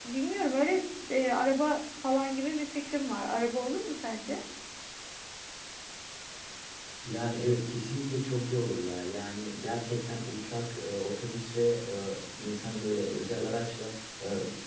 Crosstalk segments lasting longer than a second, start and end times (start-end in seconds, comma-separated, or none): none